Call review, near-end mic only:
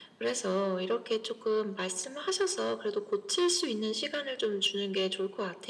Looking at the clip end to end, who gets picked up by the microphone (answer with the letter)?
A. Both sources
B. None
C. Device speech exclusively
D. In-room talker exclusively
C